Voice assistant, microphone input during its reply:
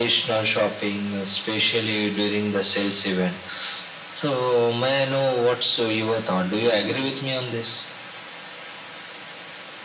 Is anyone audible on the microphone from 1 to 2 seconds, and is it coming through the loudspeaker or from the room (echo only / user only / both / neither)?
echo only